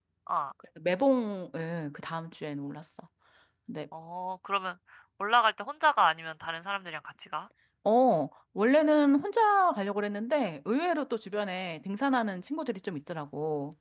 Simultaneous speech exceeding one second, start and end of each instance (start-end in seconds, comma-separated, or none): none